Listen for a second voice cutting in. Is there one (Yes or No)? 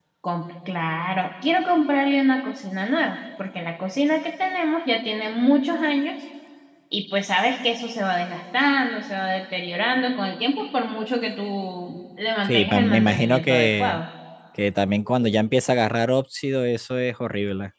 Yes